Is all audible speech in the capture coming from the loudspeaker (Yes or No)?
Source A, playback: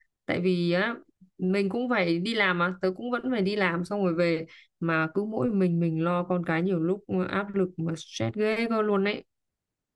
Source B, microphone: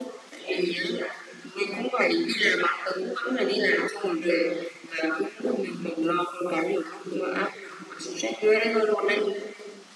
Yes